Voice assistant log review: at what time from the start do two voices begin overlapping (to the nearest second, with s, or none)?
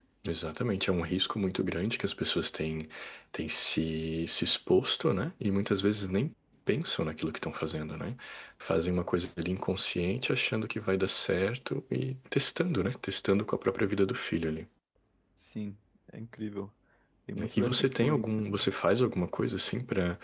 17 s